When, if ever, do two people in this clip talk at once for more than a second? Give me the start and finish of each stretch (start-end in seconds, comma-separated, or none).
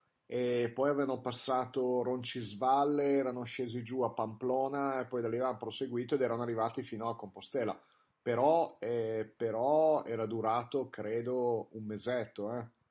none